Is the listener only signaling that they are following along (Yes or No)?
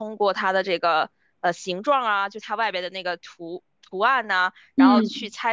Yes